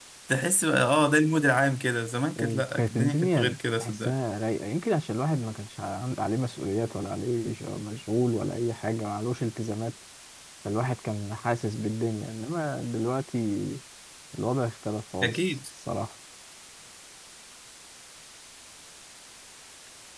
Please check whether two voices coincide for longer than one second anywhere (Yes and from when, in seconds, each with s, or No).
Yes, from 2.4 s